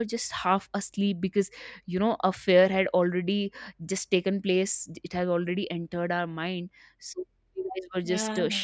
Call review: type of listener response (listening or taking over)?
listening